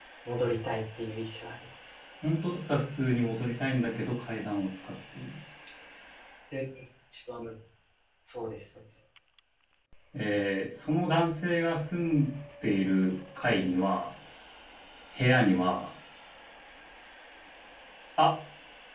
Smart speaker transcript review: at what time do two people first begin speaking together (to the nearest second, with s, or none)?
none